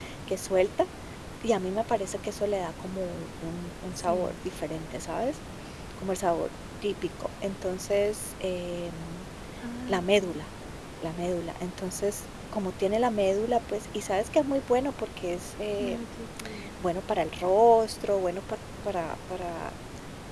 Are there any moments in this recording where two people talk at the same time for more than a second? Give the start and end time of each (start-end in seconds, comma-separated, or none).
none